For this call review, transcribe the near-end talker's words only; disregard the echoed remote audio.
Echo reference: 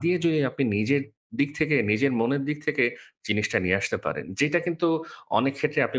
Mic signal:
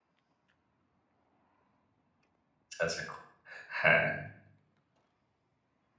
আচ্ছা, আচ্ছা। খুব হ্যাঁ।

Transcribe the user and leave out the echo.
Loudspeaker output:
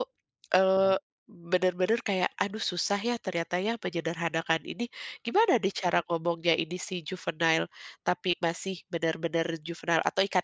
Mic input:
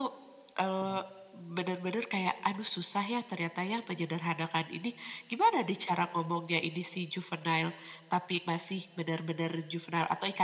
none

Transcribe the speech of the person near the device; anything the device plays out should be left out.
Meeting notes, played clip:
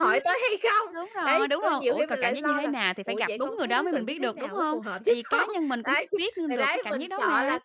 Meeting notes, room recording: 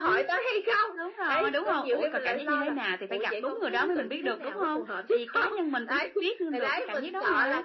none

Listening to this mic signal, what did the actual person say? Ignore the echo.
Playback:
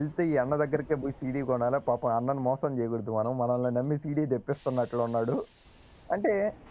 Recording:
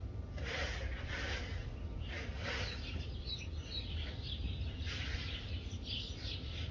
none

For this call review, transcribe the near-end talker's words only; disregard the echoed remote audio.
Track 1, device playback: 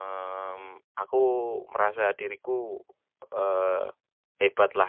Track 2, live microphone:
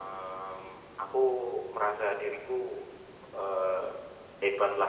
none

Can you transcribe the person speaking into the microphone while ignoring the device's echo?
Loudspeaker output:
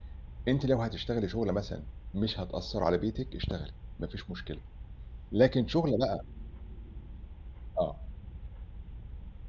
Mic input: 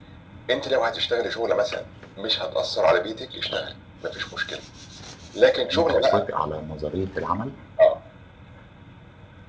يبقى أنت هتوافق على نظرية العمل؟

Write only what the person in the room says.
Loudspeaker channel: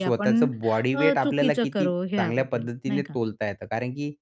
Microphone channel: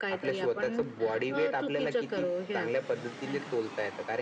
none

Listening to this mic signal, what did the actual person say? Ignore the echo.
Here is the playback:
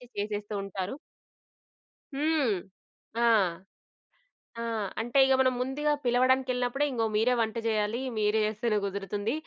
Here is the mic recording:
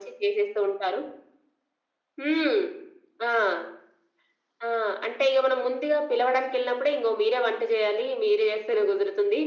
none

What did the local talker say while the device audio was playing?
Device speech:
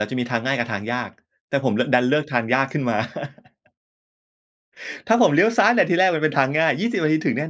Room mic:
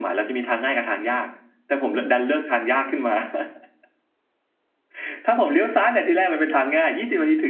none

